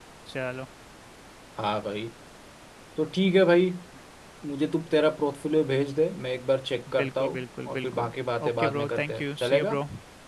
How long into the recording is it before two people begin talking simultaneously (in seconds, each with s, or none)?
7.0 s